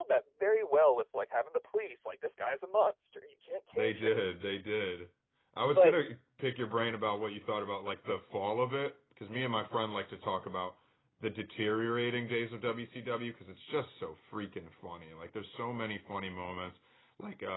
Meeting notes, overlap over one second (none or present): none